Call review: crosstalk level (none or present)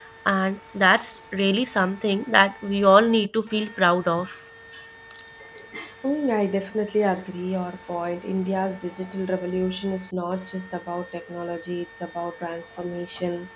none